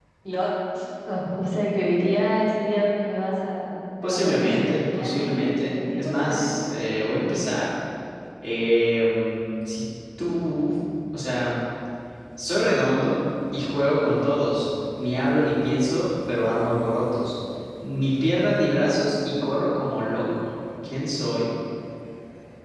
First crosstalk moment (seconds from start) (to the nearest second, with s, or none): 4 s